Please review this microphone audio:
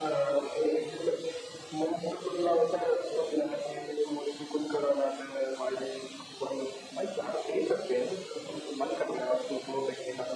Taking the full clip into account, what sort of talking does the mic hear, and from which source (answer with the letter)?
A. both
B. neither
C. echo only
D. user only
C